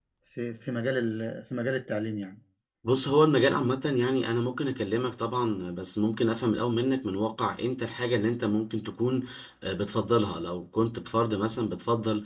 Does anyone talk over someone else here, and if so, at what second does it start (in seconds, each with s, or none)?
none